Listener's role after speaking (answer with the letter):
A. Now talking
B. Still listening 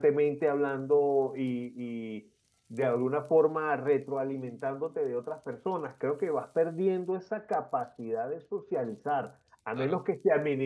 B